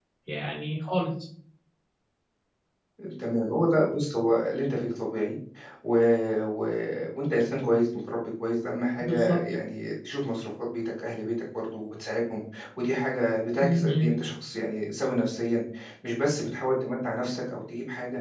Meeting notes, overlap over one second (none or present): none